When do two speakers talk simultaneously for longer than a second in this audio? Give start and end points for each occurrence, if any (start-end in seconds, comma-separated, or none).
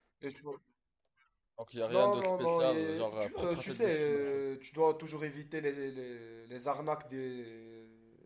1.9-4.4